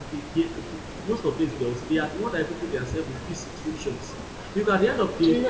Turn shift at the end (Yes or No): No